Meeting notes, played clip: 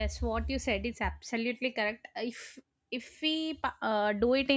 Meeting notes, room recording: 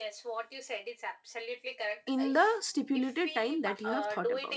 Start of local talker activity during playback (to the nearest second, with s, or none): 2 s